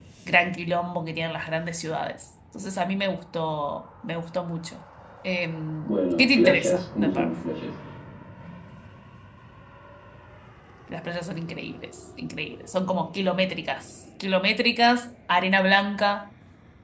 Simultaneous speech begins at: 5.9 s

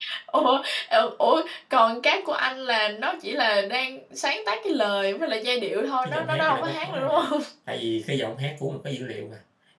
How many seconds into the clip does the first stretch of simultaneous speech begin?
6.0 s

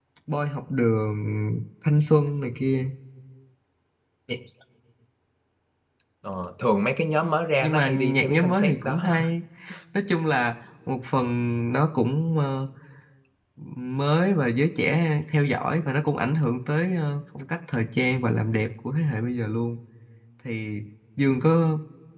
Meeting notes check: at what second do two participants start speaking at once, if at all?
7.6 s

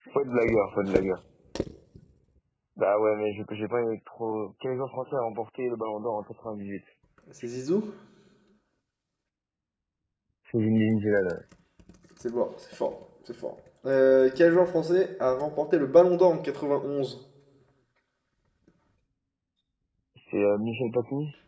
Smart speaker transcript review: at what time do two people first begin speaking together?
none

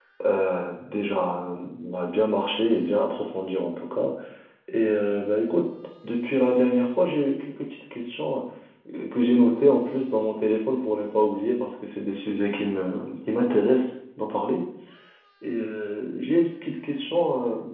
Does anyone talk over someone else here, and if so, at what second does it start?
none

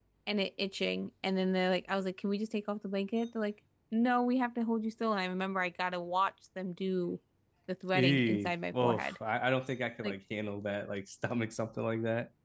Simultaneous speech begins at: 7.9 s

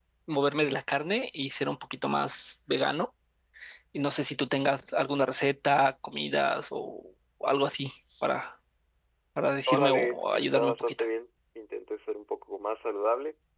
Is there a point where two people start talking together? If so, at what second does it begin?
9.7 s

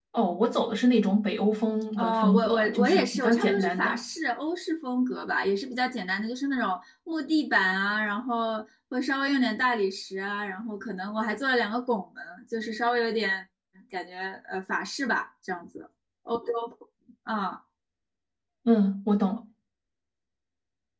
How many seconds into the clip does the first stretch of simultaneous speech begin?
1.9 s

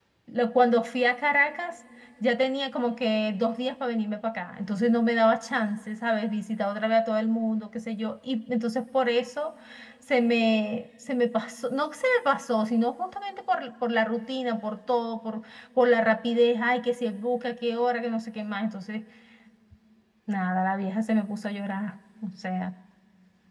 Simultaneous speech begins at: none

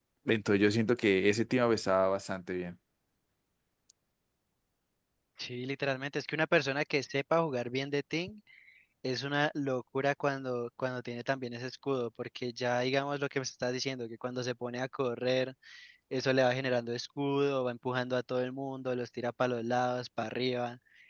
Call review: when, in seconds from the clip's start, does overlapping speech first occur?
none

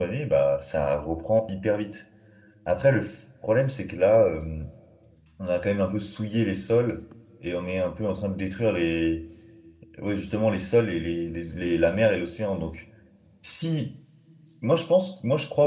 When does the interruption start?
none

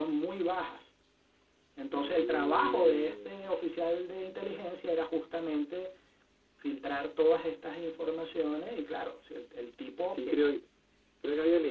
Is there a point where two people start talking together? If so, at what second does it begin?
1.9 s

